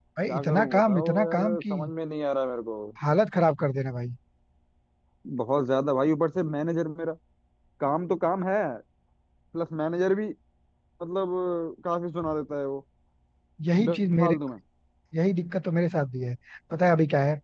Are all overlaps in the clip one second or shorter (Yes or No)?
No